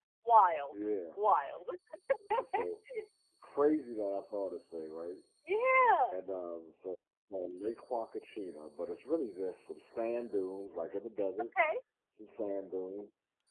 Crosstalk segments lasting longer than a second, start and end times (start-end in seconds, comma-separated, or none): none